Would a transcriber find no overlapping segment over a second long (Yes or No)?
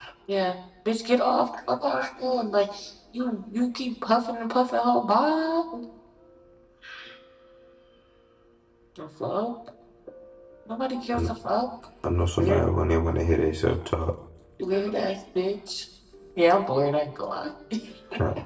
Yes